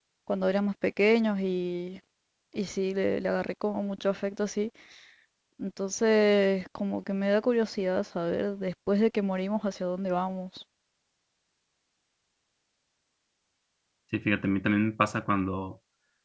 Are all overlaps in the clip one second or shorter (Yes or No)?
Yes